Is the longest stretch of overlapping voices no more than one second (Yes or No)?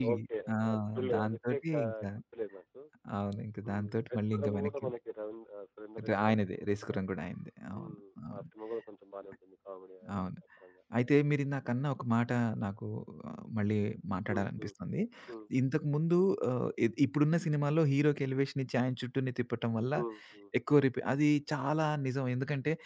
No